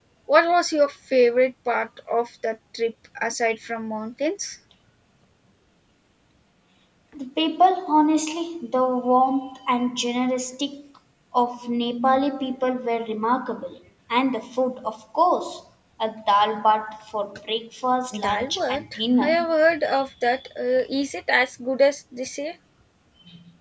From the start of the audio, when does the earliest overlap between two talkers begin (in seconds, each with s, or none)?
18.1 s